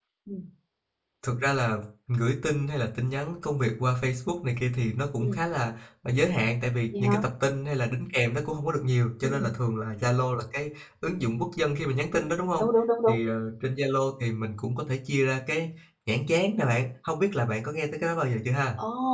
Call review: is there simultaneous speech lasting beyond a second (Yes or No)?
No